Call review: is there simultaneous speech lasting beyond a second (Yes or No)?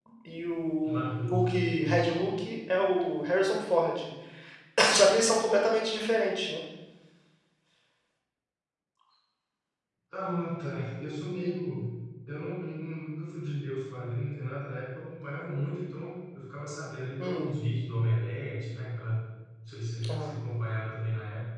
Yes